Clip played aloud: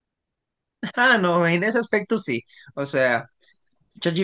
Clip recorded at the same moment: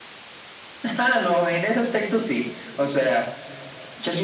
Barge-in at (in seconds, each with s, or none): none